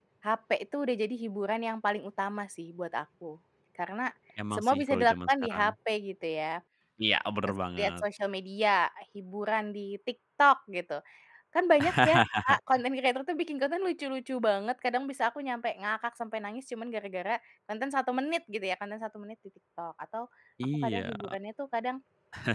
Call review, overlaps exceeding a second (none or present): present